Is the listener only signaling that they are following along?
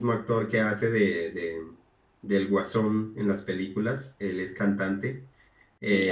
Yes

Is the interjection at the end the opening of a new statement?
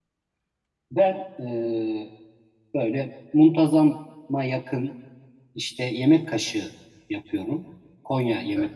No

